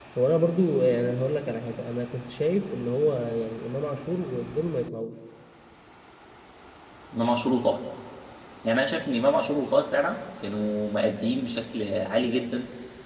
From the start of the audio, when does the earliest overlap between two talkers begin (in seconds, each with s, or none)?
none